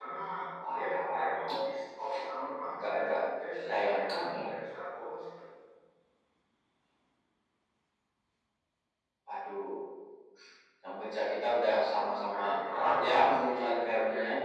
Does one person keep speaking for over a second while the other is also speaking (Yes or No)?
Yes